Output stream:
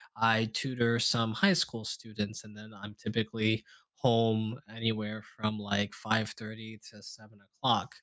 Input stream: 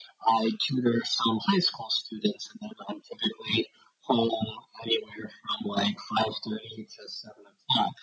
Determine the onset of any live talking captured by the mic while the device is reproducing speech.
none

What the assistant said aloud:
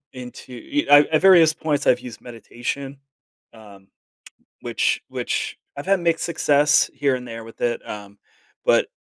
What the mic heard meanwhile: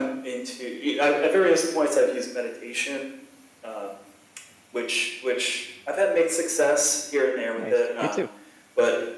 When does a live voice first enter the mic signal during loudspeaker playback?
8 s

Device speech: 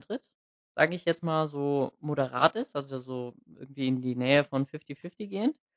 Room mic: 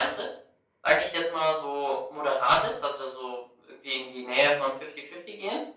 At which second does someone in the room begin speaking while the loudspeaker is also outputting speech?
none

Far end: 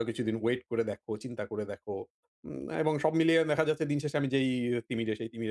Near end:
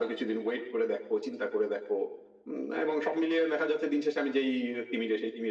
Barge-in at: none

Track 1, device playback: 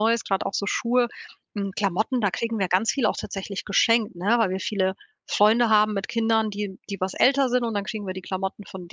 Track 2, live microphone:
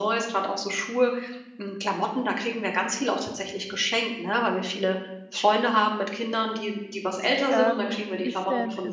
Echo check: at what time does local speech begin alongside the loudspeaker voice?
7 s

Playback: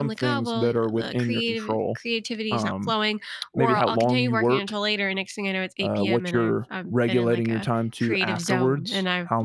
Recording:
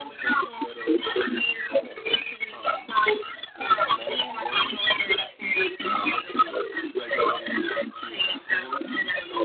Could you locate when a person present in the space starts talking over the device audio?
none

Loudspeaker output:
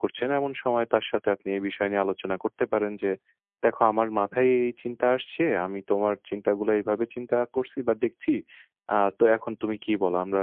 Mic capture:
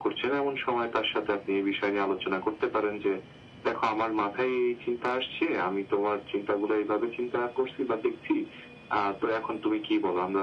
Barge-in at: none

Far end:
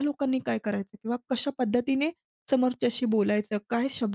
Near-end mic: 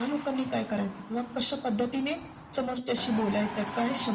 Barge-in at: none

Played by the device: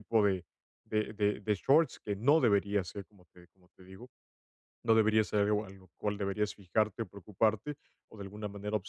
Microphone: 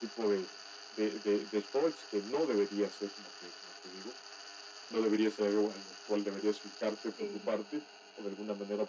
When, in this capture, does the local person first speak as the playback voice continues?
7 s

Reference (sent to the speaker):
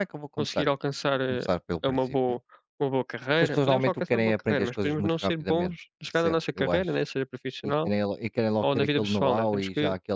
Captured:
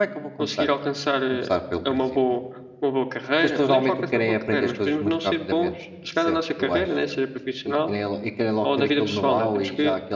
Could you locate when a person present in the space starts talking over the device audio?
none

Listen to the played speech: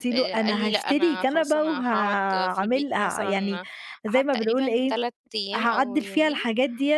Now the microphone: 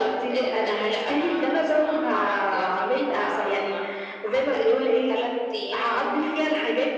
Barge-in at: none

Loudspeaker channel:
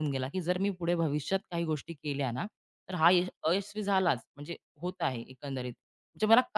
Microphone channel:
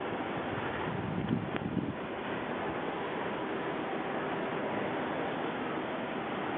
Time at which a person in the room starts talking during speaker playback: none

